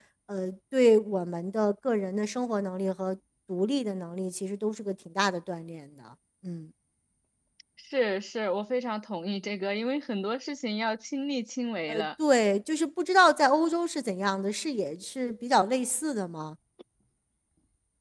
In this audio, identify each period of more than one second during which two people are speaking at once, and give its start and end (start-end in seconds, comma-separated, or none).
none